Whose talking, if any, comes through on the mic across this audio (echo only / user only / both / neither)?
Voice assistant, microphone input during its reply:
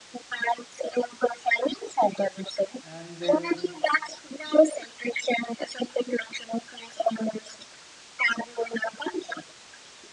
both